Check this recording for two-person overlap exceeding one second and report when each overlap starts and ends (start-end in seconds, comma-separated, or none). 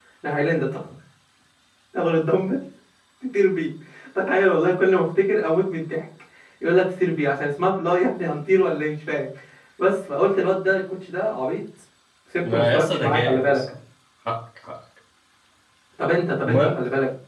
12.4-13.7